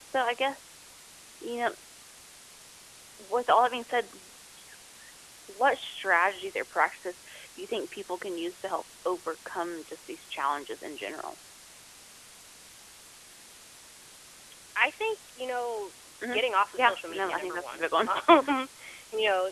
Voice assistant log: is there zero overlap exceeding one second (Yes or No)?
No